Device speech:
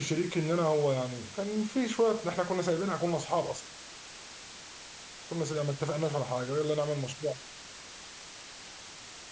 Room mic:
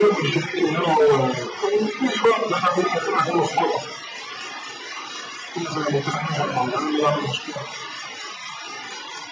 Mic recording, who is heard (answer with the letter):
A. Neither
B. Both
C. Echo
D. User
B